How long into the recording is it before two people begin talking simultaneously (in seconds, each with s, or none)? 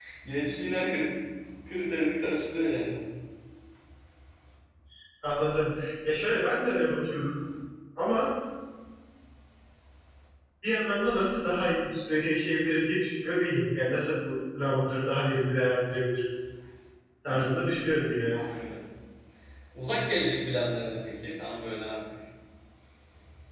none